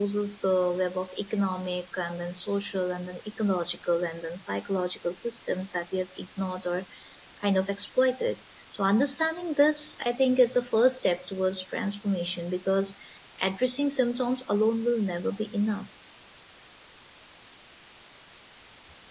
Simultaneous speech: No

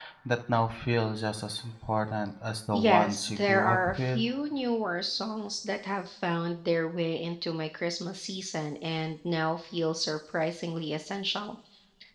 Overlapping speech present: Yes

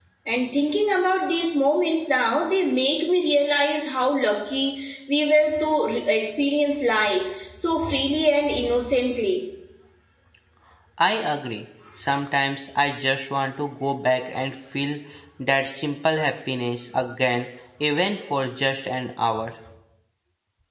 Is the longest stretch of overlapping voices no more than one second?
Yes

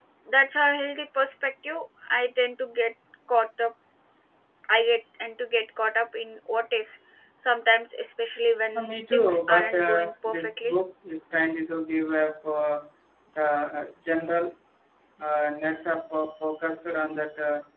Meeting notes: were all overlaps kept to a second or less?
No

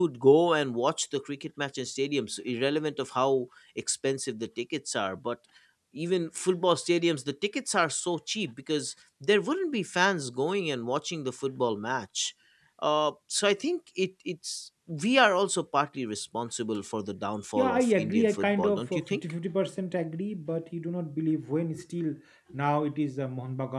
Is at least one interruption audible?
Yes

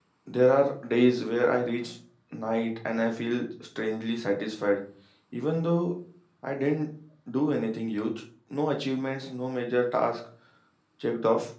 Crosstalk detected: No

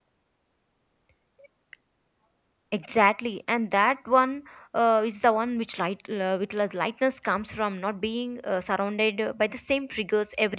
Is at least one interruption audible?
No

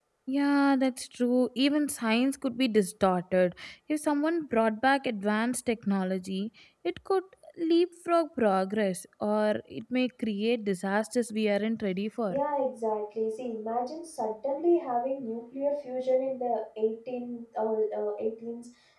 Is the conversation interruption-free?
Yes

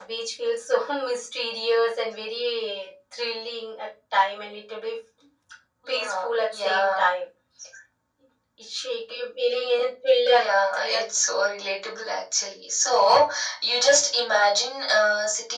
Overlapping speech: Yes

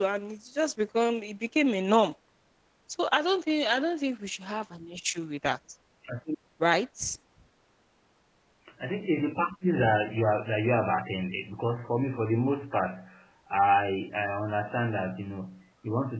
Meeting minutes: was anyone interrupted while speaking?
No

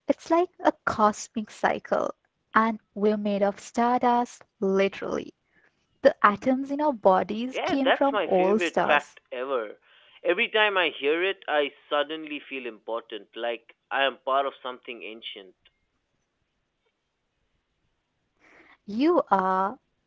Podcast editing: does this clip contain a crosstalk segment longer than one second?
Yes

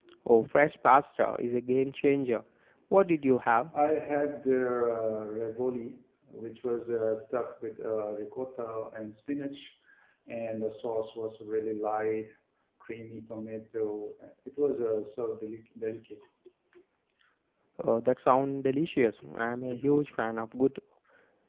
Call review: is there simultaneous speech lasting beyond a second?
No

